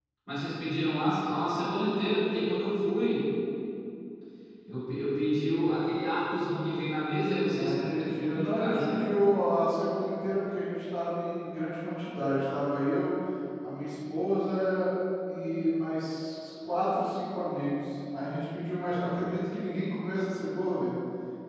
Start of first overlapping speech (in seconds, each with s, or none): 7.5 s